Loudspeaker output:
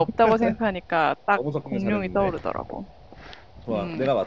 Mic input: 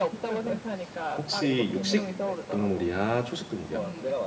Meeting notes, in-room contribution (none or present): present